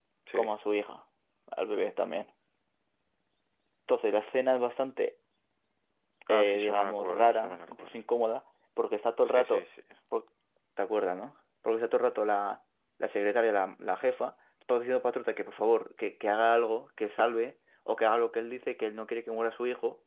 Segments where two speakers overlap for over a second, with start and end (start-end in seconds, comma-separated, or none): 6.3-8.0